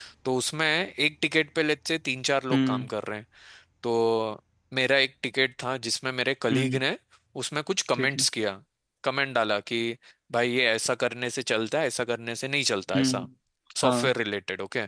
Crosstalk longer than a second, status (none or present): none